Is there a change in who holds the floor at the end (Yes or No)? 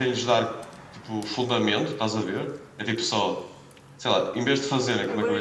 Yes